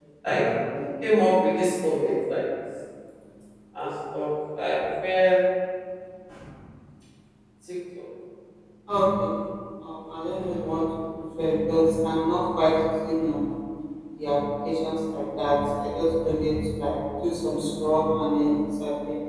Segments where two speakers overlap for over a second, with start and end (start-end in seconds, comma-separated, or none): none